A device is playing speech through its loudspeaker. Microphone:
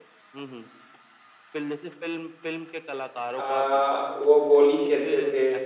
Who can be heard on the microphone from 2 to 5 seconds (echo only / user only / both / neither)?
both